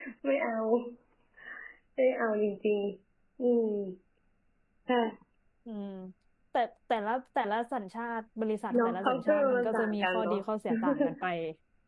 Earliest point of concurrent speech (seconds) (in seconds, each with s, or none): 8.8 s